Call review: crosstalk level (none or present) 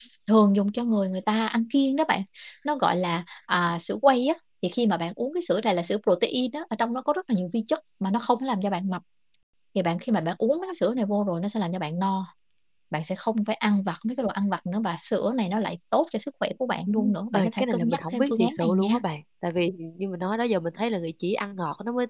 present